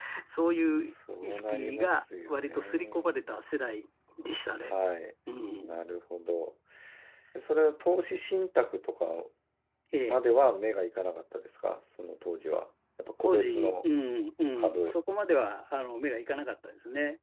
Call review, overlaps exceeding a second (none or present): present